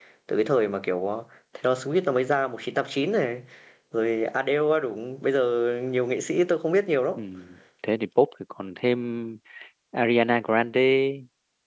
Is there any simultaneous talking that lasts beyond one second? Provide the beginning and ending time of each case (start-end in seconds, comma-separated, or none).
none